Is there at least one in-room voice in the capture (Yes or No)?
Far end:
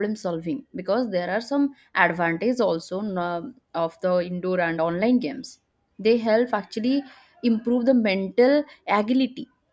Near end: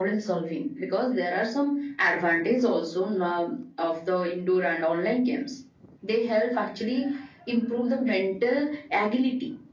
No